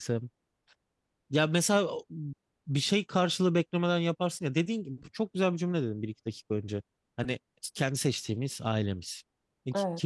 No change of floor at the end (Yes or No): Yes